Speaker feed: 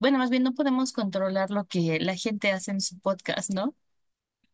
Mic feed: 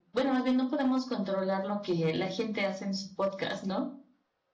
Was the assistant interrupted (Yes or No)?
No